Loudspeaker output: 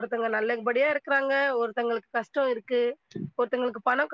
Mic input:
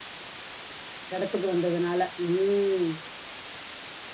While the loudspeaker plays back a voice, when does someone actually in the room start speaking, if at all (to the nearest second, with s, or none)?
1 s